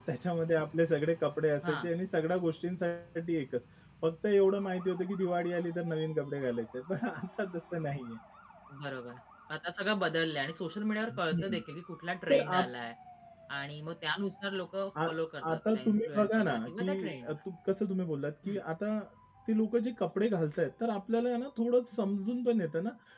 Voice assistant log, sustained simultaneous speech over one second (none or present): present